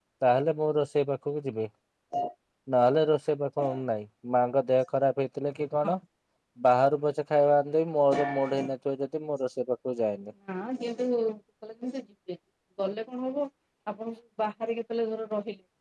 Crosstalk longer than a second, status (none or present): none